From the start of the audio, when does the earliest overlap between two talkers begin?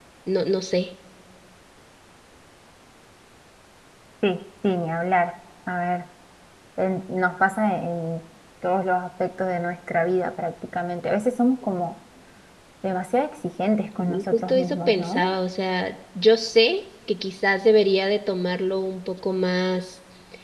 14 s

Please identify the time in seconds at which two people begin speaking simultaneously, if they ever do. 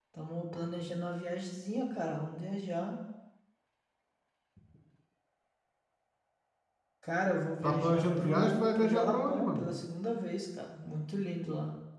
8 s

